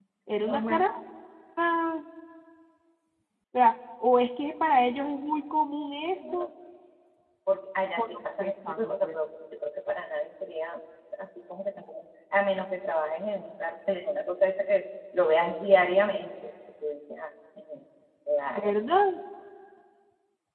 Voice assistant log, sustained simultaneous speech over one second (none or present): present